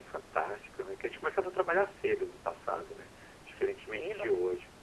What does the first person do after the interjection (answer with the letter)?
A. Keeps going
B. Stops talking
B